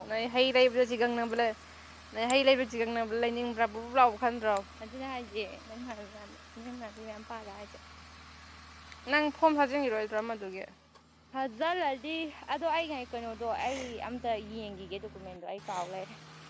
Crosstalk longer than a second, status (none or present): none